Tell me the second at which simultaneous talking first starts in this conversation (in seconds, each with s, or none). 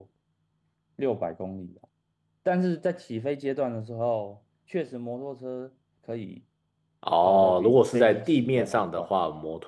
7.2 s